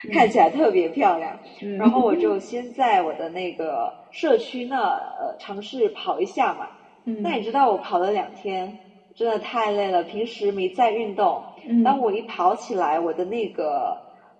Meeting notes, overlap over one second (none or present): none